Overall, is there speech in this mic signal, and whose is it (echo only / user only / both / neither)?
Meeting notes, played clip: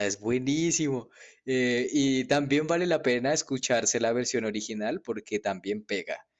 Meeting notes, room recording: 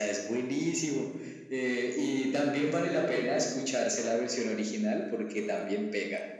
echo only